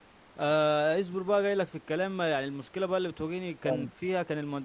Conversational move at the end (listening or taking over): listening